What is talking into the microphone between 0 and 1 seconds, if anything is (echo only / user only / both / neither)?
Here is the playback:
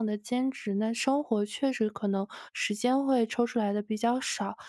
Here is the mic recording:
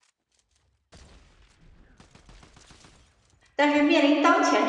neither